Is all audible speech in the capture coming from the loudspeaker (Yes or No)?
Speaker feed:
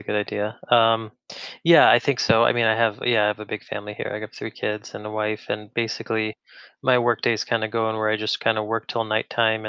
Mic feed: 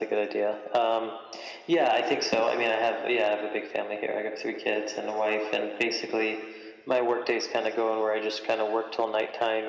Yes